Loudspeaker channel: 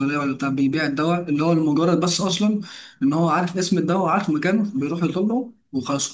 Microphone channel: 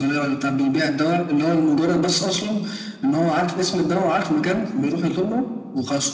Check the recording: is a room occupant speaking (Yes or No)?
No